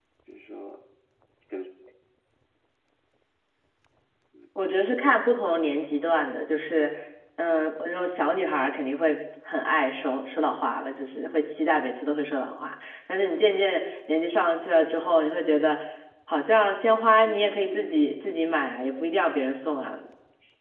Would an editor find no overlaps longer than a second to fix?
No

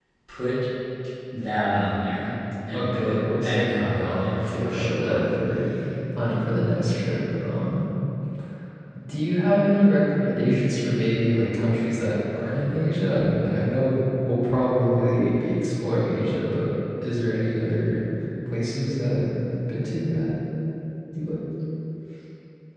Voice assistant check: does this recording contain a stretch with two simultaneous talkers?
Yes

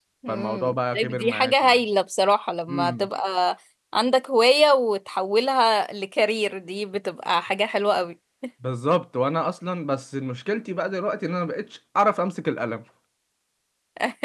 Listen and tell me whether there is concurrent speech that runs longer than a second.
Yes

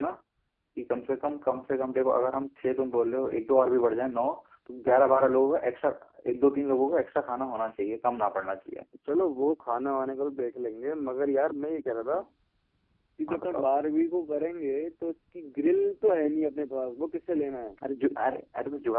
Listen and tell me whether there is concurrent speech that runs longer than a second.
No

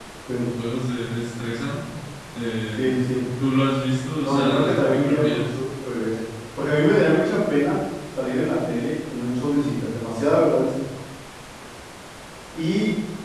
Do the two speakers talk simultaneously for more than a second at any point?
Yes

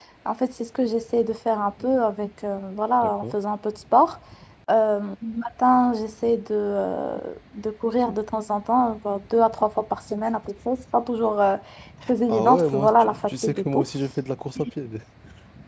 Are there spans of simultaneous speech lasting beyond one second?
Yes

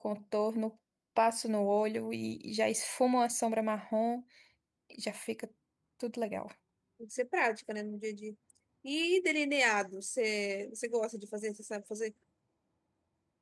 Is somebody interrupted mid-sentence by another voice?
No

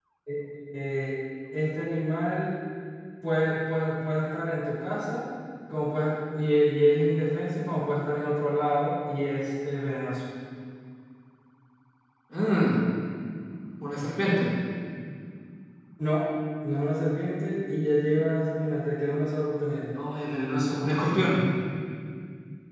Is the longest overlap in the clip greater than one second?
No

